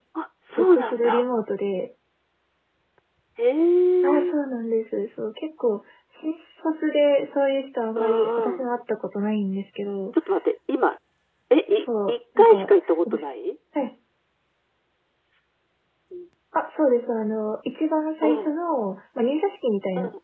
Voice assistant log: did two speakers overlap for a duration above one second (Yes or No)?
Yes